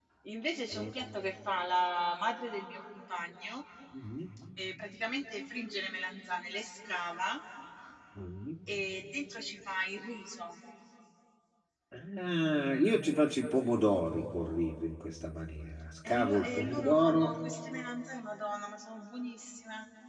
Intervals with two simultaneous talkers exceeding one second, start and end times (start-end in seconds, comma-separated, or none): 16.1-17.3